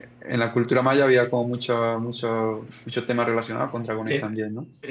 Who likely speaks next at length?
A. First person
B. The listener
B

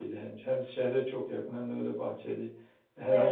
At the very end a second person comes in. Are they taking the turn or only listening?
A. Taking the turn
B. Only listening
B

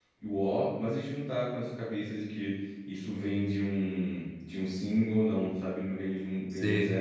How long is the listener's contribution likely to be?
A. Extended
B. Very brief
B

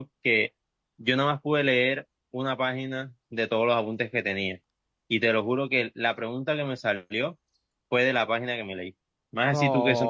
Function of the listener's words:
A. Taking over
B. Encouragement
A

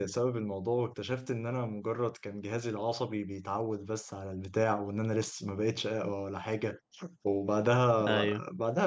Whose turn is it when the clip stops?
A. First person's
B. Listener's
B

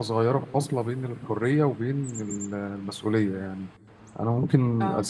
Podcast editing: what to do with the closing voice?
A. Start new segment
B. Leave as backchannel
B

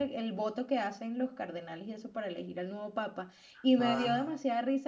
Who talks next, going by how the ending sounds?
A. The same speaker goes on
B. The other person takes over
A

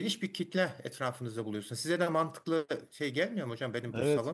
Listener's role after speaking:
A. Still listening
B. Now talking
B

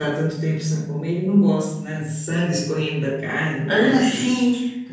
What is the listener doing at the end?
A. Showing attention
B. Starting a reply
B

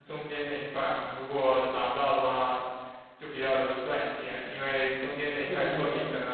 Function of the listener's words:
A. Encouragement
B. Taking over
A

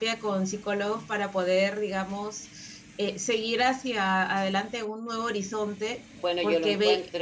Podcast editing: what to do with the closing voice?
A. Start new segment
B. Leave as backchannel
A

